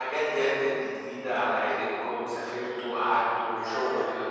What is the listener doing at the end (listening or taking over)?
listening